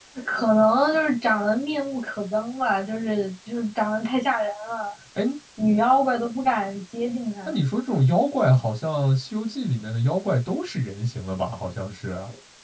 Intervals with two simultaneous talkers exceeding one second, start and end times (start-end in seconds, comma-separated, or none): none